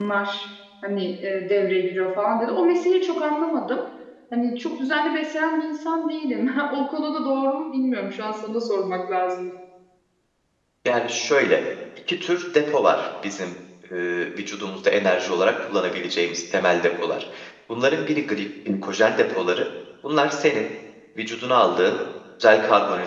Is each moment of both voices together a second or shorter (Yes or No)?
Yes